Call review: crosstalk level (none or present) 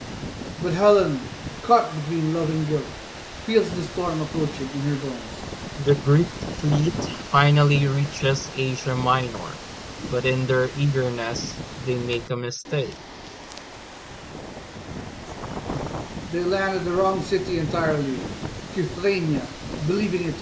none